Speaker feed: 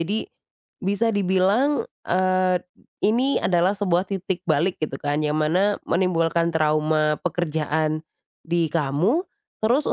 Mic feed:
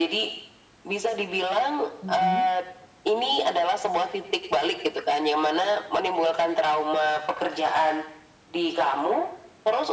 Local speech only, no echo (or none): mhm,